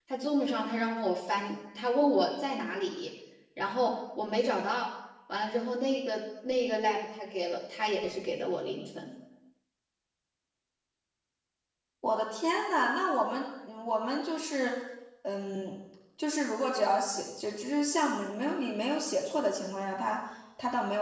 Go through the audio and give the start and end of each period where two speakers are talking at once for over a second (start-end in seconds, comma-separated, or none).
none